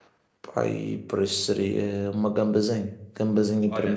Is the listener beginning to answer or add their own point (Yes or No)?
Yes